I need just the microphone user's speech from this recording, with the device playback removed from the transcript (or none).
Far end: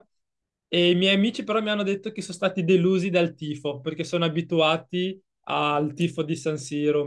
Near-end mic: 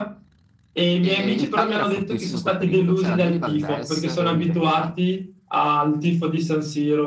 e il Cagliari era fortissimo in quel periodo. C'era Deli Valdés e Oliveira,